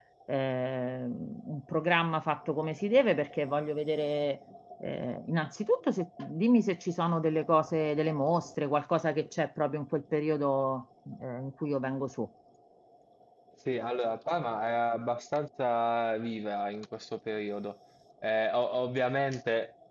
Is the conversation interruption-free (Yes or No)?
Yes